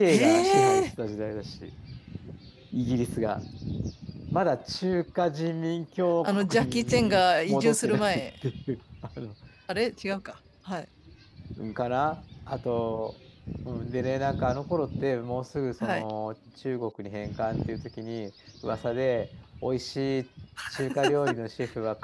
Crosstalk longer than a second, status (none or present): present